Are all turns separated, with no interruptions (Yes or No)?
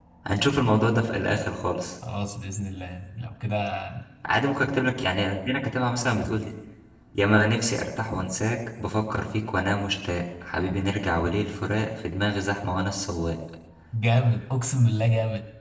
Yes